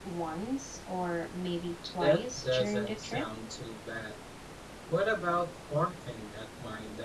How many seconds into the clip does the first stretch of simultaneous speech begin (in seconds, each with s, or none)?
2.0 s